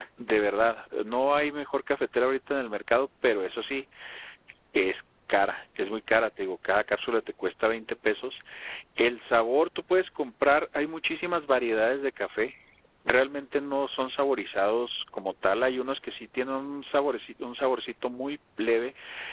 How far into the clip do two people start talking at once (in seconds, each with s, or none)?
none